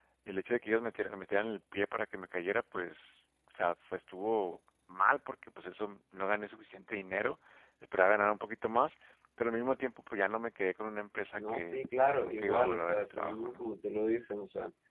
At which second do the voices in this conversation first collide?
11.4 s

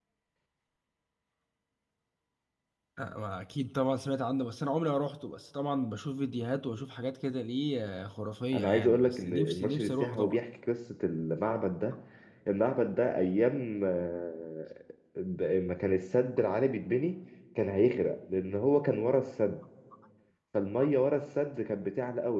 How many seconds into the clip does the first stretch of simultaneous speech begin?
8.5 s

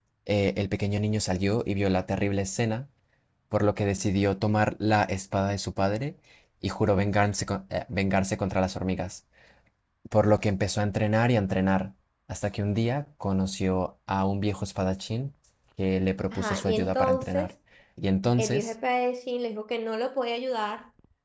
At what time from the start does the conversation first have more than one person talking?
16.3 s

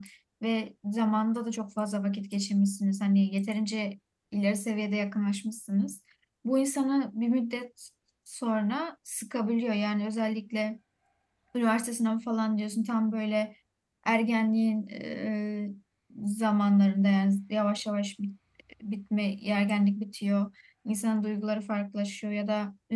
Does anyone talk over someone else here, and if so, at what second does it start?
none

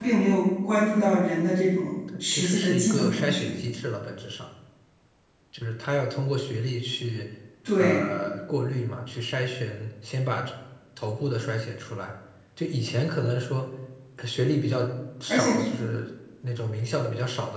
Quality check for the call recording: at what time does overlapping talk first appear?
2.2 s

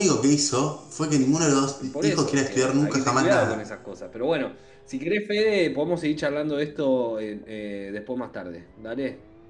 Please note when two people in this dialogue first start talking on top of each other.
1.8 s

